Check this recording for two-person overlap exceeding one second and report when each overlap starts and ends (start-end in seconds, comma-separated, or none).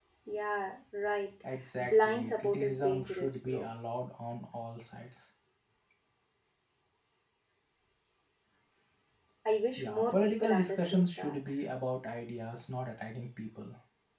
1.8-3.7, 9.8-11.4